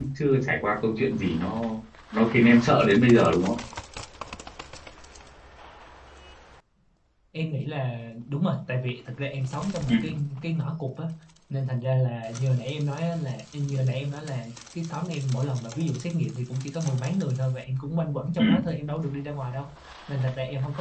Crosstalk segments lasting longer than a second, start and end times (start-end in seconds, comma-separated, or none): none